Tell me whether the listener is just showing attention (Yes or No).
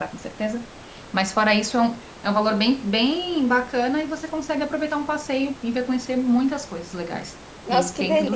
No